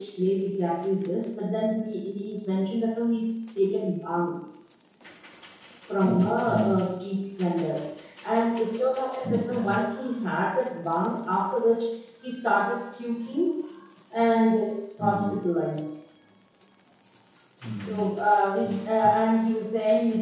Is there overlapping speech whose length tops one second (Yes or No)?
No